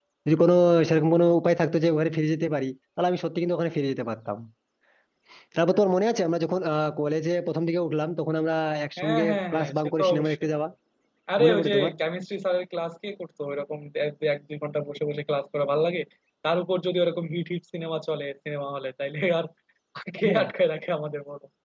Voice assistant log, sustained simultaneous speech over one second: present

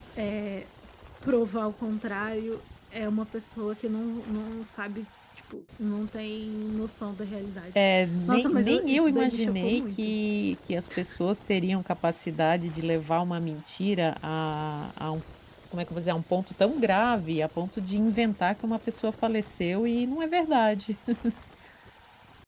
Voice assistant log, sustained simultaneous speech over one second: present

